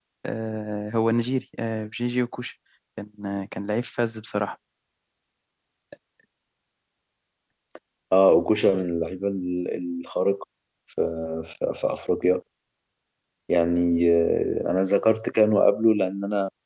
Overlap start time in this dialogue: none

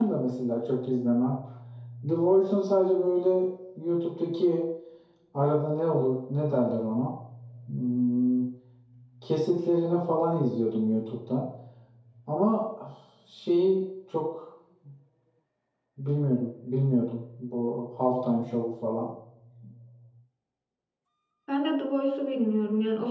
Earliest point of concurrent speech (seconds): none

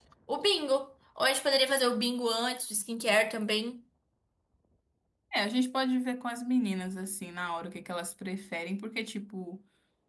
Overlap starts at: none

